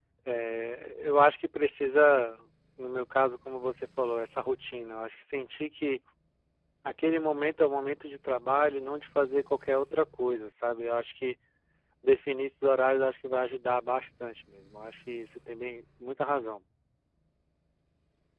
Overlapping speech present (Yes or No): No